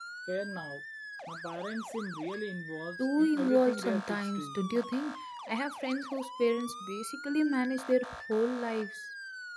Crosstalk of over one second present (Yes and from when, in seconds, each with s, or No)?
Yes, from 3.0 s